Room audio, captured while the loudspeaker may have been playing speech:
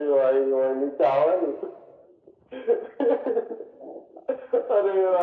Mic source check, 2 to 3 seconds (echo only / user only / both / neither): echo only